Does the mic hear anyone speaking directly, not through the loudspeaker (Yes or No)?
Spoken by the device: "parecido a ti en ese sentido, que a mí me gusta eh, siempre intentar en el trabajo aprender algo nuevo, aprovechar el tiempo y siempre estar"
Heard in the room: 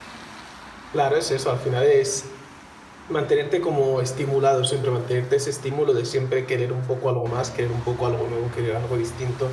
Yes